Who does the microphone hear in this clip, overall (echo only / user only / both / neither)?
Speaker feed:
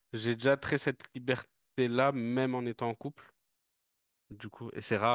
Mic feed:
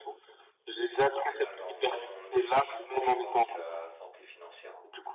both